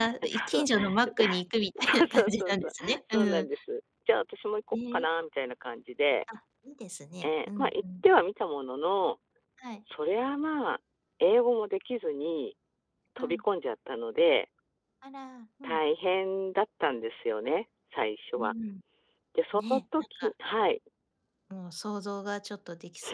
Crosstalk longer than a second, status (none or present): present